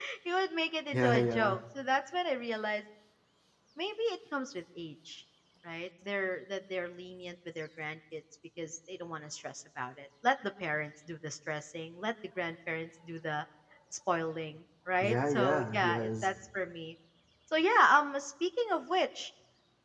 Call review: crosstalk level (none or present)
present